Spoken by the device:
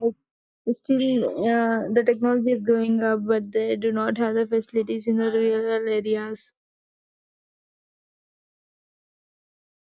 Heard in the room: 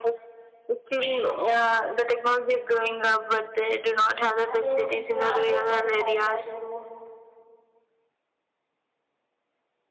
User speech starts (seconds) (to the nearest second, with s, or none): 4 s